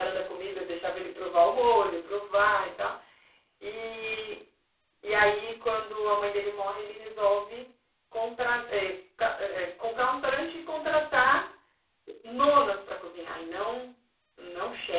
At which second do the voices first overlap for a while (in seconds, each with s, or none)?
none